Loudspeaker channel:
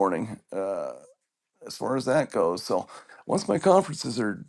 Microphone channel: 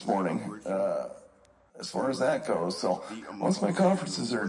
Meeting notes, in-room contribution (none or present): present